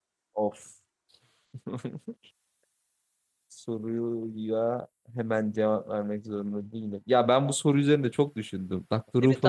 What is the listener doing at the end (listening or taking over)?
taking over